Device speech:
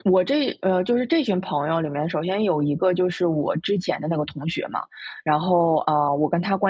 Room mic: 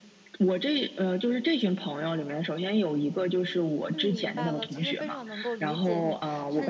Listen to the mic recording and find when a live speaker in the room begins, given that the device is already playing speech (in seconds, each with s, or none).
3.9 s